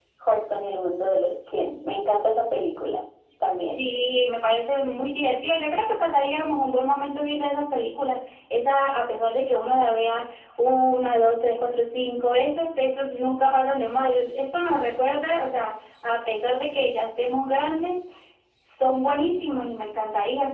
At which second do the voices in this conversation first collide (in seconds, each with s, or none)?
none